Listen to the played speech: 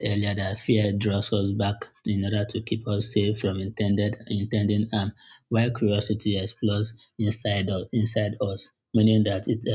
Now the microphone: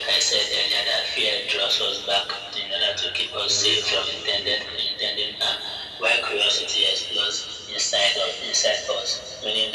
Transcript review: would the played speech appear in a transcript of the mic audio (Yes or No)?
Yes